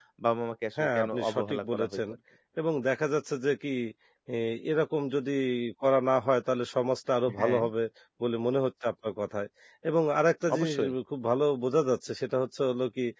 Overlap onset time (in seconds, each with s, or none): 0.8 s